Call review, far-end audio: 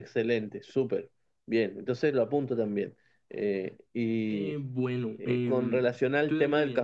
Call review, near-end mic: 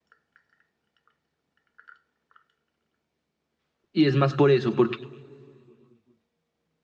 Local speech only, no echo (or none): Y es más por eso, porque,